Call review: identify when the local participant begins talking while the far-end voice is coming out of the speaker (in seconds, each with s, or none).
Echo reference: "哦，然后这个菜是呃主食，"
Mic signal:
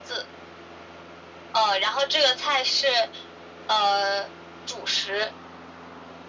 none